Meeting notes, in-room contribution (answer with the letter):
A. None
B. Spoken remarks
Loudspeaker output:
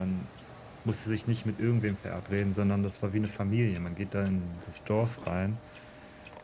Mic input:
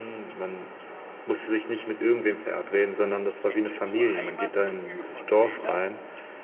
B